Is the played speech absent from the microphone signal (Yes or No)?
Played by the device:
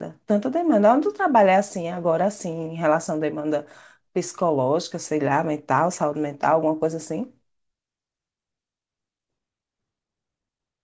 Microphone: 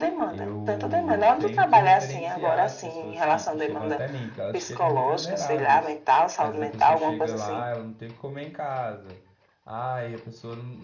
No